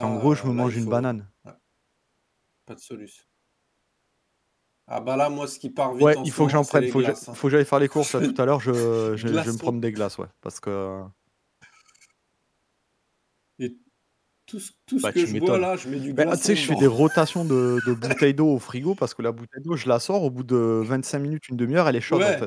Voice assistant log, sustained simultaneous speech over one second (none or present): present